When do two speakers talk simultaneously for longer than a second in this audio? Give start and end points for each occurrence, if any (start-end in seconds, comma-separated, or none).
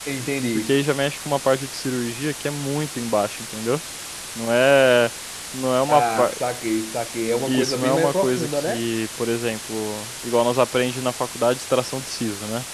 7.5-8.8